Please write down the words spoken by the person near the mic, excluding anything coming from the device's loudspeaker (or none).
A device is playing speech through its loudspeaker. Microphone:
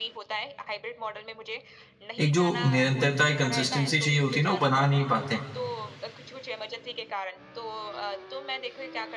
एक जो निरंतरता, एक कंसिस्टेंसी चाहिए होती है ना, वो बना नहीं पाते हैं।